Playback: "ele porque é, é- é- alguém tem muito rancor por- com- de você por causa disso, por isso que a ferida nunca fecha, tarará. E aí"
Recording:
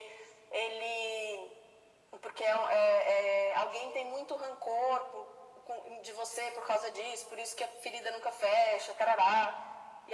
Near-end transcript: none

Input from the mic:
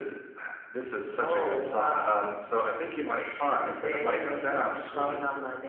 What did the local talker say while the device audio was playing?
none

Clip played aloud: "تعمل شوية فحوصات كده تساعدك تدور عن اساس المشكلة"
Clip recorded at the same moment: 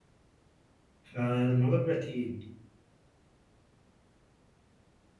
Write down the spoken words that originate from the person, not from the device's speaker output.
فالموضوع بيبقى تقيل

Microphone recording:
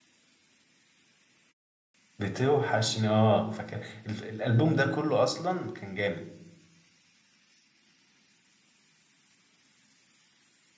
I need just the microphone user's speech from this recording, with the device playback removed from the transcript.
بتوحشني اه فكان ال- الالبوم ده كله اصلا كان جامد

